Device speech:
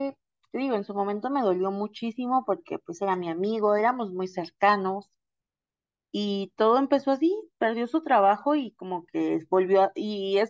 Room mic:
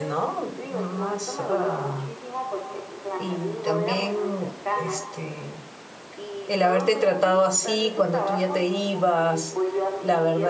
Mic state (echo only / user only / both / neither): both